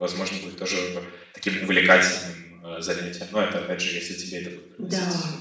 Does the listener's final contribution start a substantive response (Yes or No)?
Yes